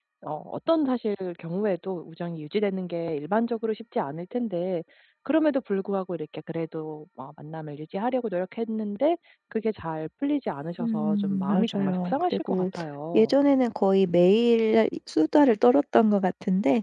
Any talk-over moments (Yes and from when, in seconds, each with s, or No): Yes, from 10.8 s